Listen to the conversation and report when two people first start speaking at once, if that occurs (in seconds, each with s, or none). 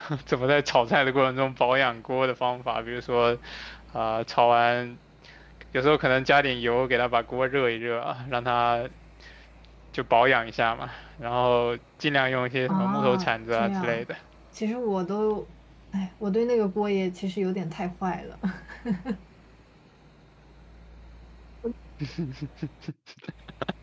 12.7 s